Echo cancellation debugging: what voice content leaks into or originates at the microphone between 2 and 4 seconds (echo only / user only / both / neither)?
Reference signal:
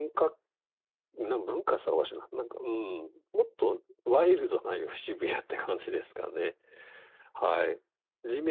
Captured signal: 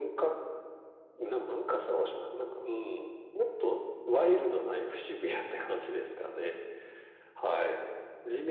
echo only